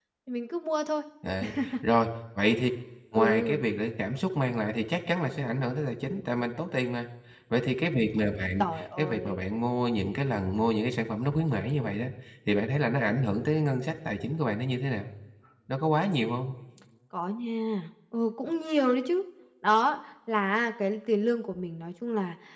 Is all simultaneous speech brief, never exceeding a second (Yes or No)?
Yes